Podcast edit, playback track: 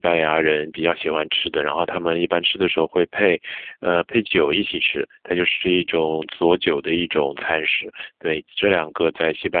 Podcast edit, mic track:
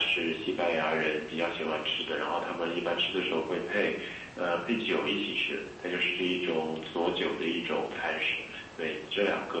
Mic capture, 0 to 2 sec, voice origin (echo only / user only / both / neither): echo only